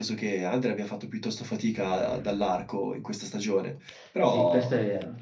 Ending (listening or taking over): taking over